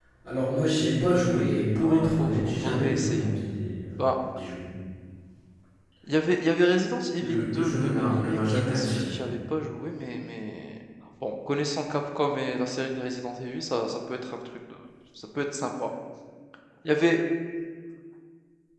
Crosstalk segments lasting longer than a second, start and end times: 1.8-3.4, 7.2-9.1

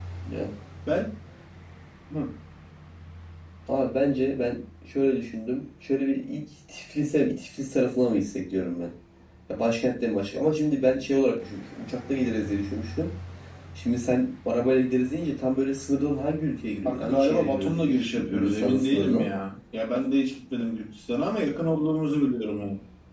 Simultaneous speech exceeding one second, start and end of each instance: 16.8-19.3

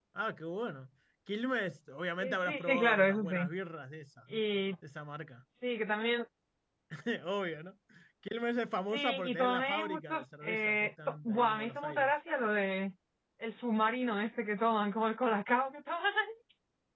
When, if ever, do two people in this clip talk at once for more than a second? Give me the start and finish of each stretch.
2.2-3.5, 8.8-12.1

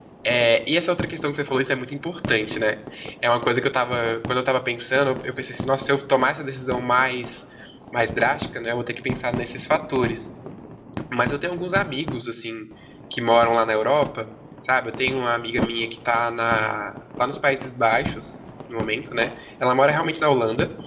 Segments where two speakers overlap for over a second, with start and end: none

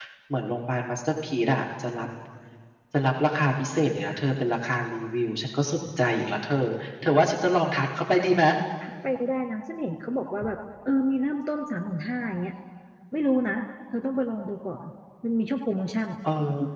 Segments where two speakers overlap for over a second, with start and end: none

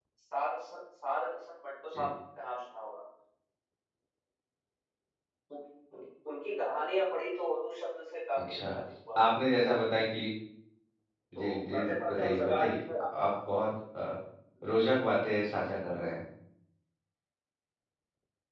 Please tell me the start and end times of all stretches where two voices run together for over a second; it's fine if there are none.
11.3-12.7

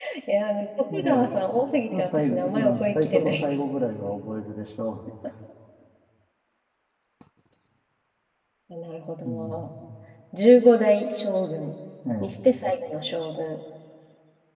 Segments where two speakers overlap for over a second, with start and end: 2.0-3.4

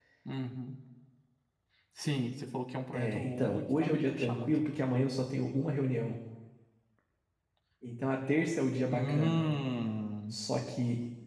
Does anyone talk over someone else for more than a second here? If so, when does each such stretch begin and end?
2.9-4.6

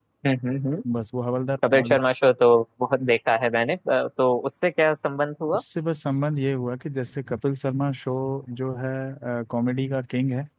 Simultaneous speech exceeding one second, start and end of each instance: none

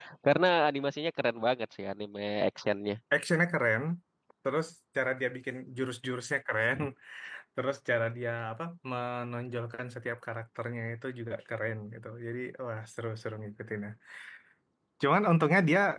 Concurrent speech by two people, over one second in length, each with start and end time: none

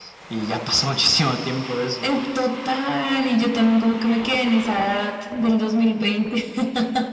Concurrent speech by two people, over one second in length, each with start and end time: none

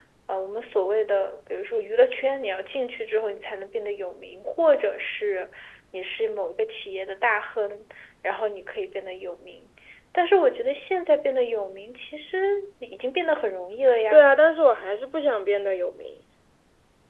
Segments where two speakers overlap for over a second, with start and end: none

